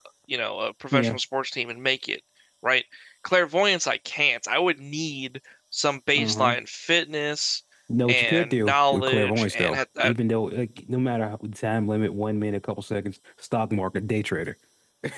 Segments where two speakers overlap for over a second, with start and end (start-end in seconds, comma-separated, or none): 8.1-10.1